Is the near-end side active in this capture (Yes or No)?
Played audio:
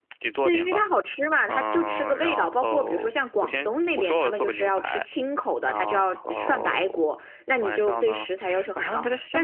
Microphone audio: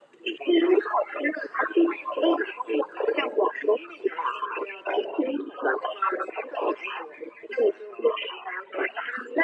No